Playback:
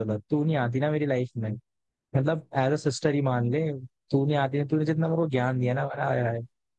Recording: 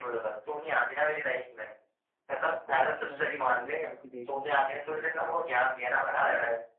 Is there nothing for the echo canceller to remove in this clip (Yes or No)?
No